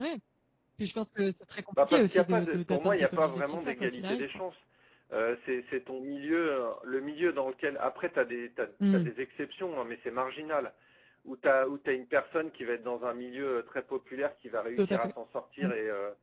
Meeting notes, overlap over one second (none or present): present